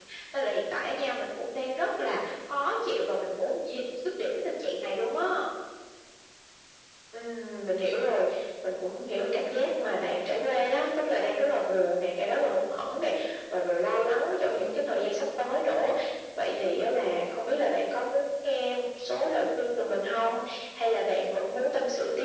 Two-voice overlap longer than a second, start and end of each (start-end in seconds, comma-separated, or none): none